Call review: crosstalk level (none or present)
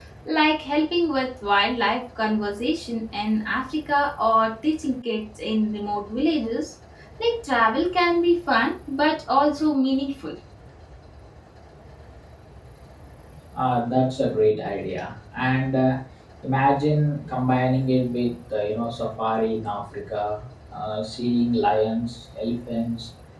none